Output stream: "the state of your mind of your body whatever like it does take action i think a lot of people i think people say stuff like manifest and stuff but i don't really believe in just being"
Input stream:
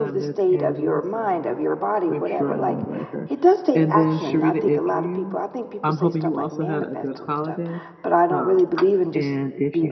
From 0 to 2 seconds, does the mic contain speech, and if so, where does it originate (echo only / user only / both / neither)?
both